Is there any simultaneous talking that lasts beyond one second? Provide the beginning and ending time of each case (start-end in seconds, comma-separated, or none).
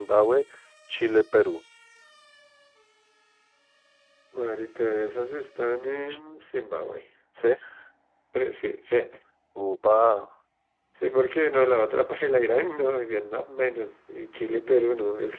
none